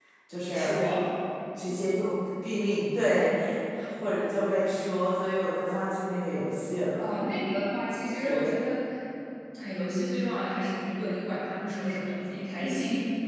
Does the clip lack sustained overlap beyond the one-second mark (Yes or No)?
Yes